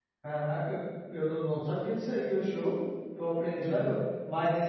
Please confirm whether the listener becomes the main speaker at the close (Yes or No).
No